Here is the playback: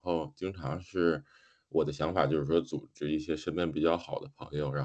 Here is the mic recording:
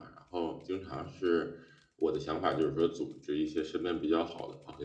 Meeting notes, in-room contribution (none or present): none